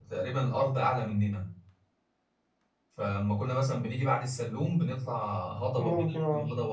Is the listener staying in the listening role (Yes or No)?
Yes